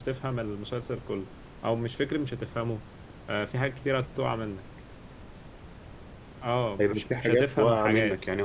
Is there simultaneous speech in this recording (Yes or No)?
Yes